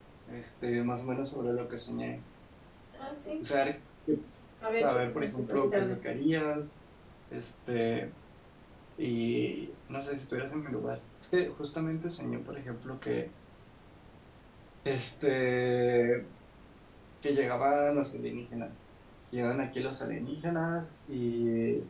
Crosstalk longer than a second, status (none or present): present